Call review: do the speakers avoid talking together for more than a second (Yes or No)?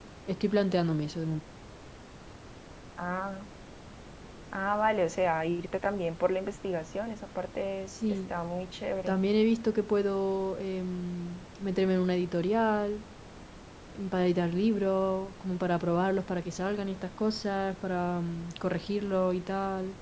Yes